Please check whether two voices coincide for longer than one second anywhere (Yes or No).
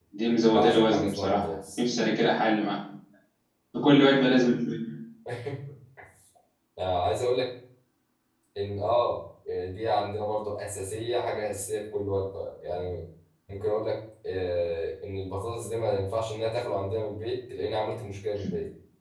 Yes